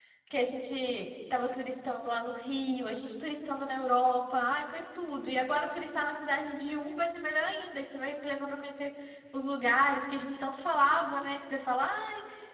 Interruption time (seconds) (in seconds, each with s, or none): none